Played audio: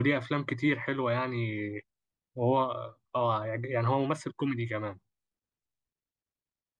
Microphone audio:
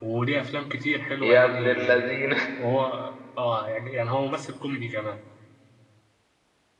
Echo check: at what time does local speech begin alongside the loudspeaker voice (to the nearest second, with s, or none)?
1 s